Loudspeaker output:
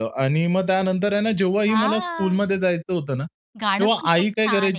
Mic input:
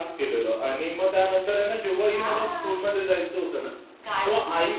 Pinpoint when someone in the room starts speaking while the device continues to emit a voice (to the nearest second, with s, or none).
none